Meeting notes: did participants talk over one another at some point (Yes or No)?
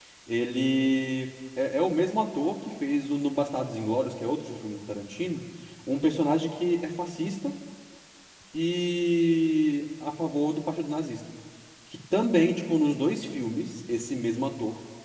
No